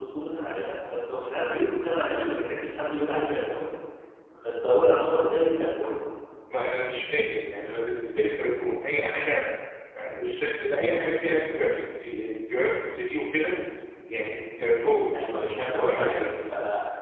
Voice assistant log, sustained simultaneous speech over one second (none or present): present